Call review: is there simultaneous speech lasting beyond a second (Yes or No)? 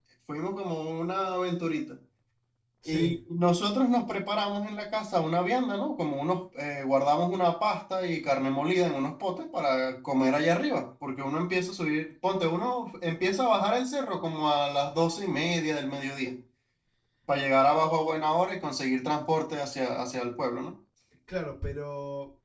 No